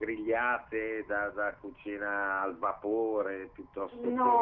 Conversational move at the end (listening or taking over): taking over